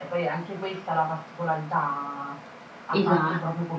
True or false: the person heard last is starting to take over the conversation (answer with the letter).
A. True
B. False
B